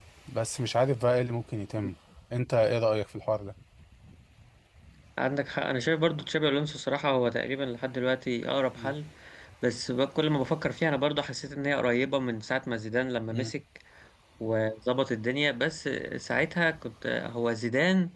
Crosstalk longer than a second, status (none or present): none